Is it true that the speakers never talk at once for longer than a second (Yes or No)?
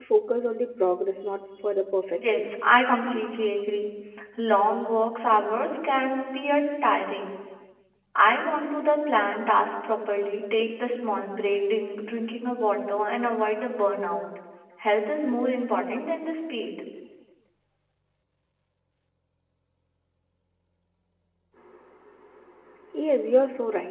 Yes